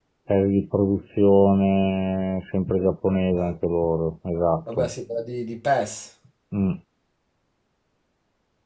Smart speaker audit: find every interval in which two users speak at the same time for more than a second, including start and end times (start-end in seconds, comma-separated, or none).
none